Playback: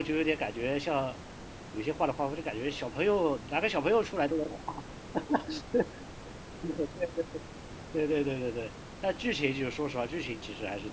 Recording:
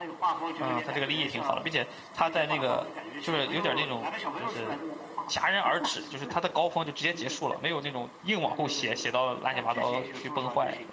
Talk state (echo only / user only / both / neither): both